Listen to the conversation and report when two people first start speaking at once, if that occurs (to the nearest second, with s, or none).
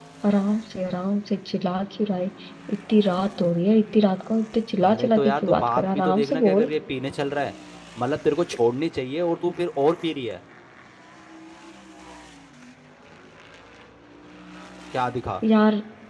5 s